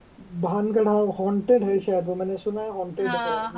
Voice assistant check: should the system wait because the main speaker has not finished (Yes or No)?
Yes